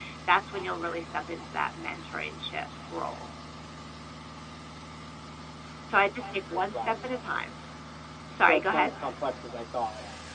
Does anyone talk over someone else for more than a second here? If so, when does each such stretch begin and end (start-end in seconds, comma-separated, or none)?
none